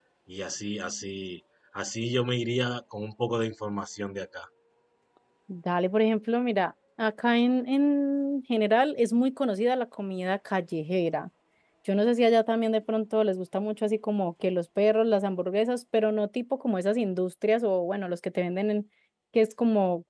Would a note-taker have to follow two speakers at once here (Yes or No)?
No